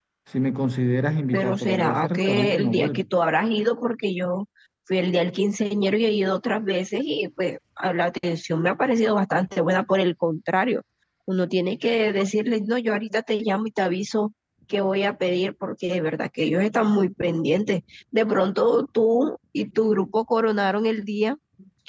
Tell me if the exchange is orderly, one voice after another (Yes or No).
No